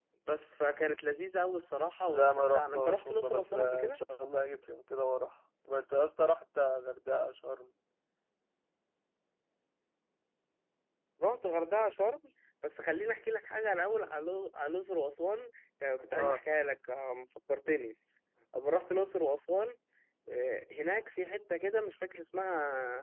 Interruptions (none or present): present